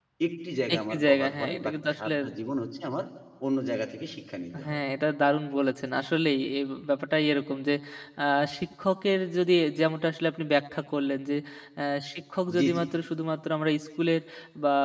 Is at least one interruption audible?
Yes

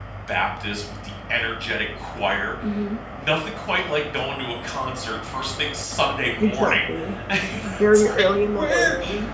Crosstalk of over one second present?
Yes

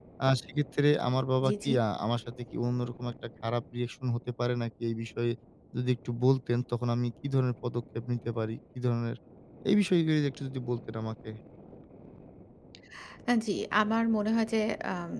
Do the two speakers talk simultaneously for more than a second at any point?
No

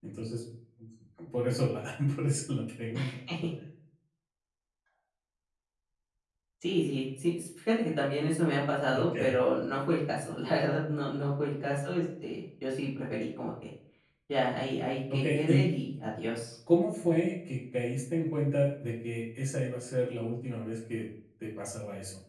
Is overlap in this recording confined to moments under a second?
Yes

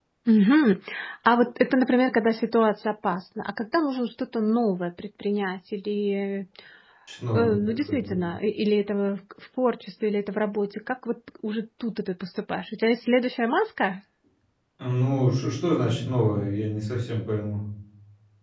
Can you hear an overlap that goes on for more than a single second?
No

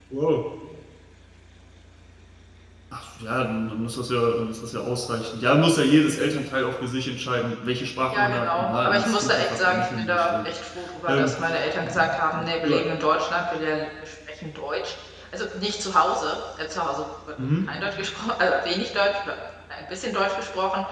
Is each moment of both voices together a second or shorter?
No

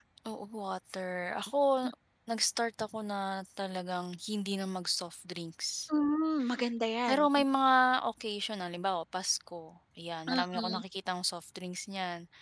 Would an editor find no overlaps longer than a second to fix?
Yes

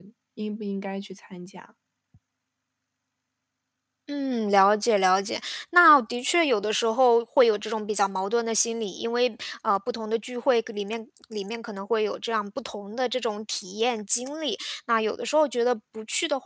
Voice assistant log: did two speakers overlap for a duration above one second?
No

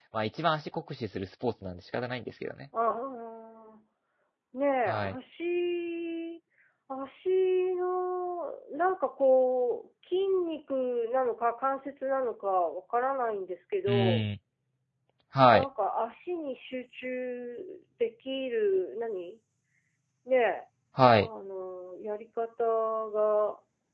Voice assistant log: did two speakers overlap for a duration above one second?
No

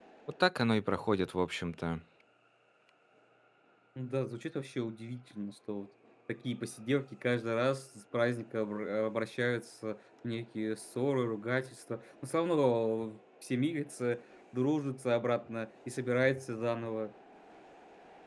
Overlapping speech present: No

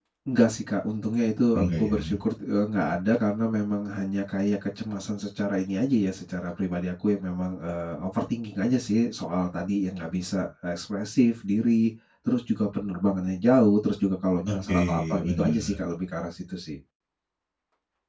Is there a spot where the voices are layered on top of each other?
Yes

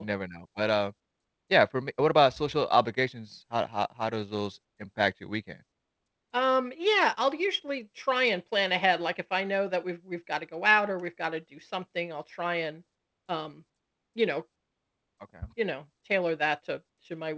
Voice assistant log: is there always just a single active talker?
Yes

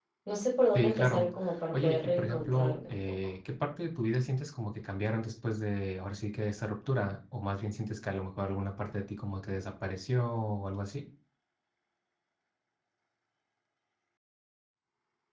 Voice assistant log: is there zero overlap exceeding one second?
No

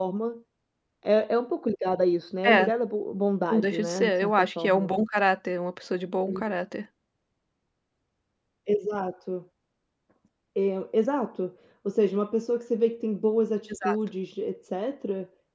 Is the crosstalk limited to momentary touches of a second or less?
No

